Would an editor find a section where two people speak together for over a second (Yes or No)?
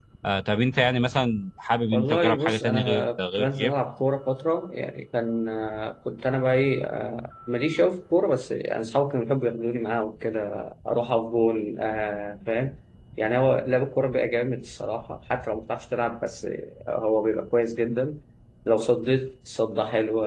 Yes